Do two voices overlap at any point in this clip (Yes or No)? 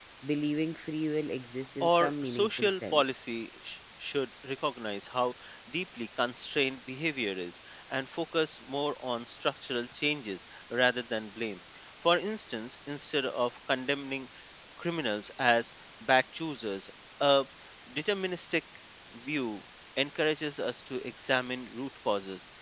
Yes